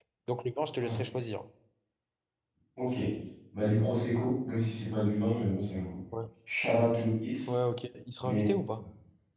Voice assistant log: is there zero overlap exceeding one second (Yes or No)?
Yes